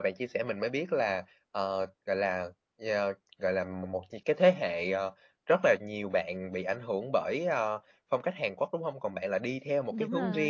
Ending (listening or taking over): listening